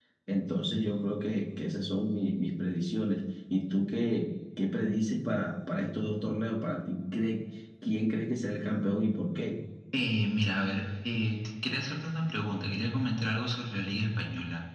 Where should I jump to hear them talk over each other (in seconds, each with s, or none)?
none